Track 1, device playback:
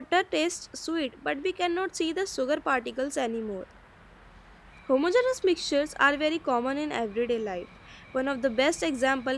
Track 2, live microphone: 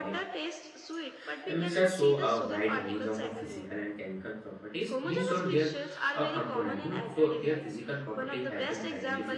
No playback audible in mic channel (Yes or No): No